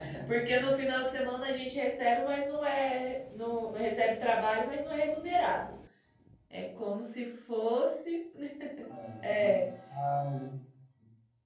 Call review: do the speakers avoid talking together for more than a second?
Yes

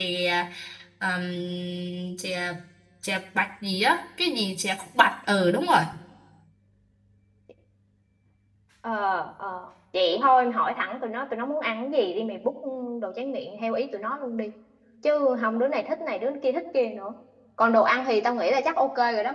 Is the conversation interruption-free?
Yes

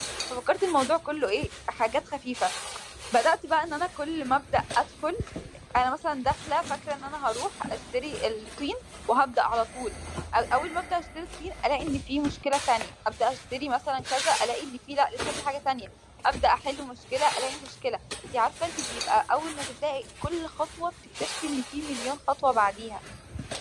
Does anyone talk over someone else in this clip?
No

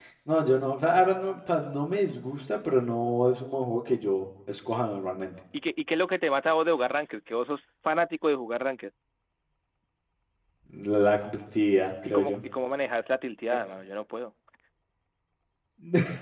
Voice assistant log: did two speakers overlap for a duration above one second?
No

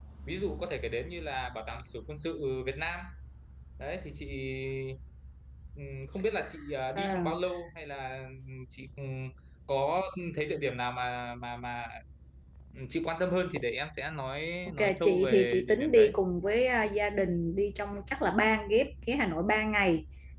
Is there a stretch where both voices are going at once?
Yes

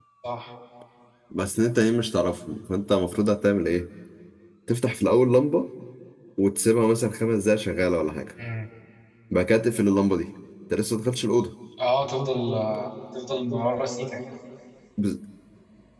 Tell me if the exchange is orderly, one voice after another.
Yes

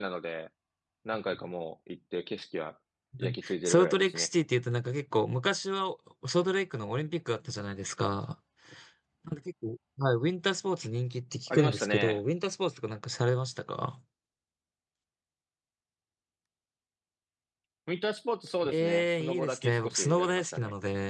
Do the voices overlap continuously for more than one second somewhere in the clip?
Yes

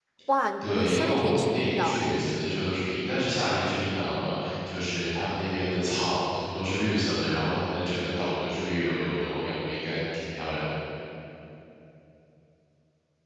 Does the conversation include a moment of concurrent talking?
Yes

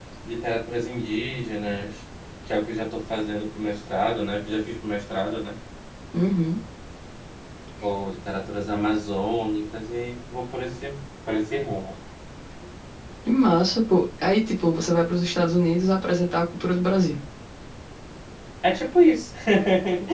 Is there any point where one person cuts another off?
No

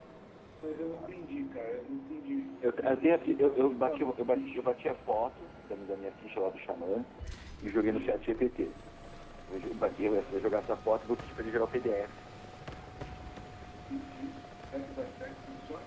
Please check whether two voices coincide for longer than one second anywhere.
Yes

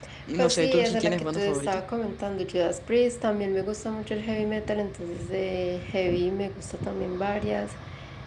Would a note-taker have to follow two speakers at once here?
Yes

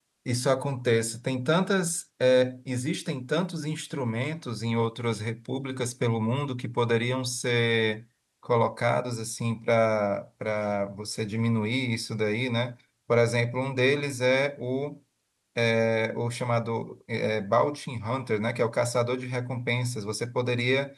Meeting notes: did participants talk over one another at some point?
No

